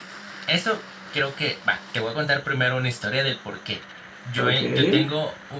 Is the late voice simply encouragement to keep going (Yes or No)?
Yes